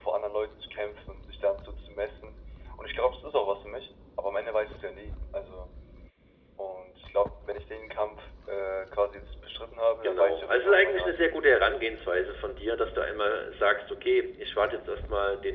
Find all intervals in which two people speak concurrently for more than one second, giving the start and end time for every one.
10.0-11.5

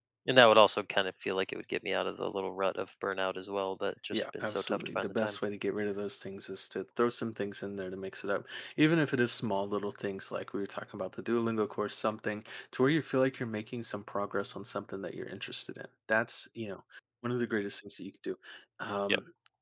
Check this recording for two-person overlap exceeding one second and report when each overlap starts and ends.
4.1-5.4

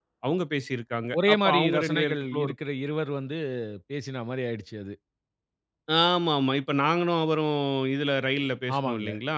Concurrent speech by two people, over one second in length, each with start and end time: 1.3-2.5

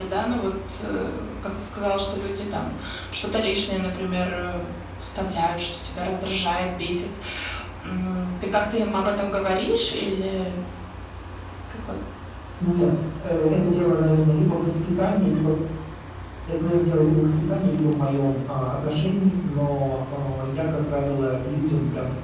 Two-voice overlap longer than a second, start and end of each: none

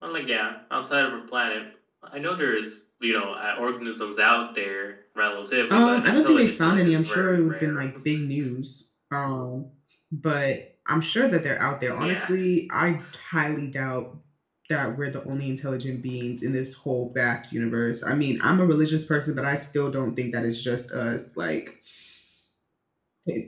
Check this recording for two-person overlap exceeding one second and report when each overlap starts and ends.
5.7-7.8

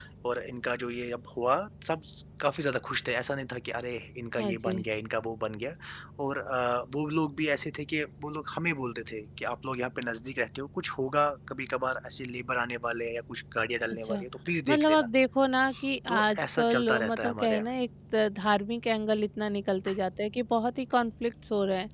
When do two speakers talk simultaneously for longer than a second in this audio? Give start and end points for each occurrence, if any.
16.1-17.7

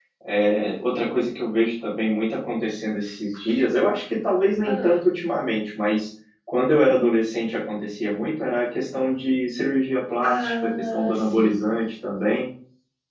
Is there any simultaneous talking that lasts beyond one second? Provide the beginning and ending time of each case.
10.2-11.7

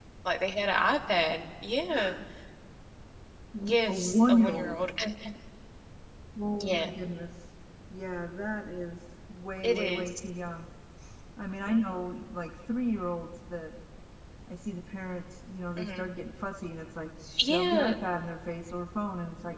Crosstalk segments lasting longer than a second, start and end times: 3.6-4.8

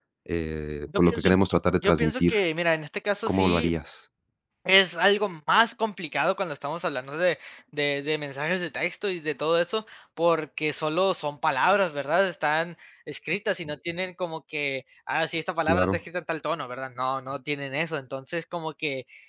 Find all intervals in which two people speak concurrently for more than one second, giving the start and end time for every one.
none

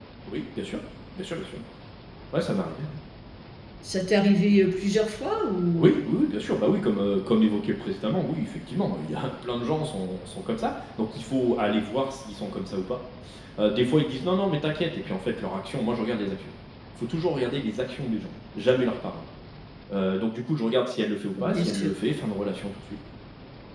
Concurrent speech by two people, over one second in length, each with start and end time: none

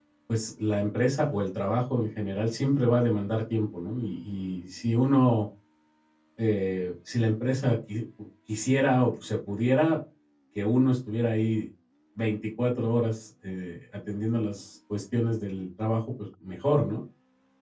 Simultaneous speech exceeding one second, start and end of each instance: none

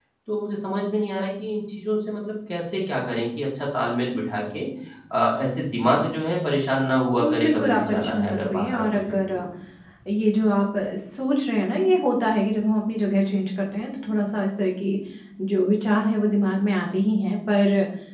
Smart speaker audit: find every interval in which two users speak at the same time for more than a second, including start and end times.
7.2-9.4

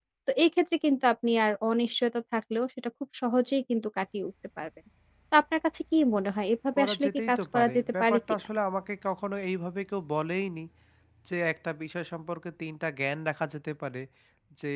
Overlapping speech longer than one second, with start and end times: 6.8-8.2

